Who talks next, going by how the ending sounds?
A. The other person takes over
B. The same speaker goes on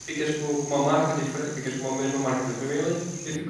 B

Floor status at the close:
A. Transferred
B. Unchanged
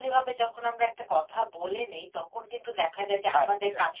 B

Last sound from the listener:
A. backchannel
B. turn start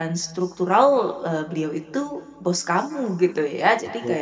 A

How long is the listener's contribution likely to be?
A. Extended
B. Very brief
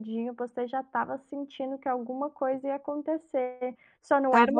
B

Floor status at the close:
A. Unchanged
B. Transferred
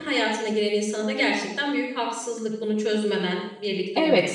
B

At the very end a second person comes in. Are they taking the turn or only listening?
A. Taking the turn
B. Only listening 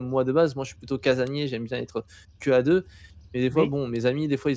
B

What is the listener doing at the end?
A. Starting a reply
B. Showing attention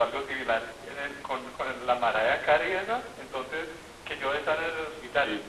B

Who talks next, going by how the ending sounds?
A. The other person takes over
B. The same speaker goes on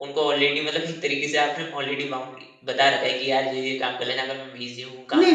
A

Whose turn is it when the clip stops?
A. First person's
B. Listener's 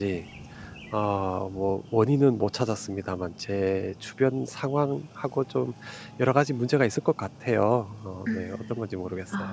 B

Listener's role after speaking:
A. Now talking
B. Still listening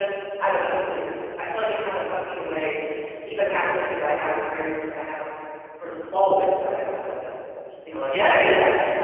B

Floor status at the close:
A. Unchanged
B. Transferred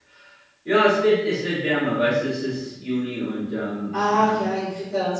B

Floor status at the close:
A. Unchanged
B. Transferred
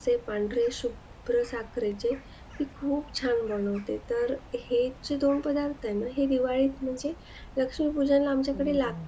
A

